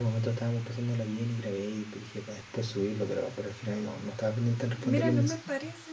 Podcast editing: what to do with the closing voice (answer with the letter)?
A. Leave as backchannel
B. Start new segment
B